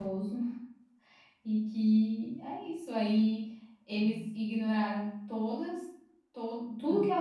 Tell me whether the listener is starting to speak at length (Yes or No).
No